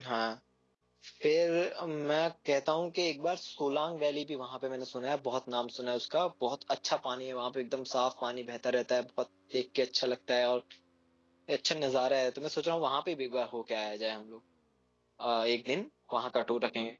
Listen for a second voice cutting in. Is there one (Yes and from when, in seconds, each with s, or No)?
No